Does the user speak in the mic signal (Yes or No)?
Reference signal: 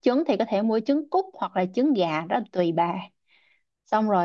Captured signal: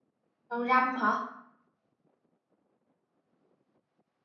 Yes